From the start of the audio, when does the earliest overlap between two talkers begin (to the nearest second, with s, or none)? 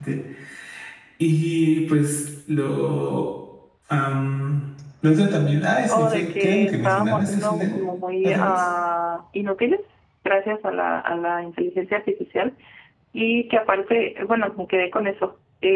6 s